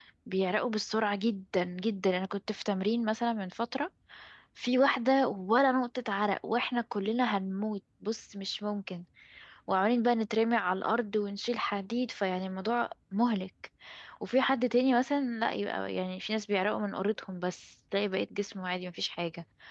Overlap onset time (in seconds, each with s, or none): none